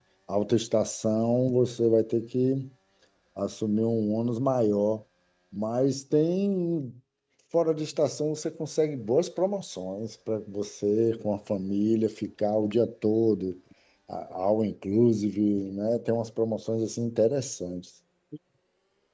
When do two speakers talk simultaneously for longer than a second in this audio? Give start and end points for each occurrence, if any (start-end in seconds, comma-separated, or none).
none